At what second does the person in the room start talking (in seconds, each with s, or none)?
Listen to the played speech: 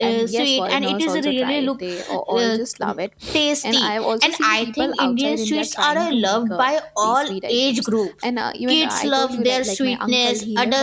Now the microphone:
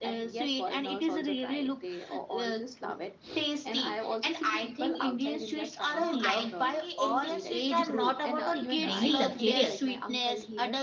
5.8 s